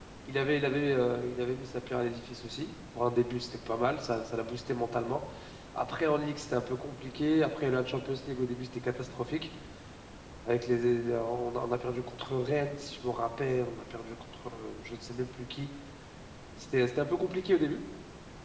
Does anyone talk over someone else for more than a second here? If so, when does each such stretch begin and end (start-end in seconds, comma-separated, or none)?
none